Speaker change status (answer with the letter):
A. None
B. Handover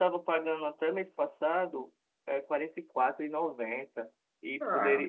A